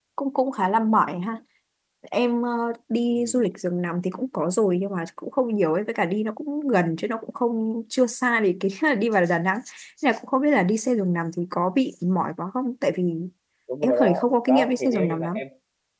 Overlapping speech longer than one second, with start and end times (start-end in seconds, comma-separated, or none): 13.8-15.4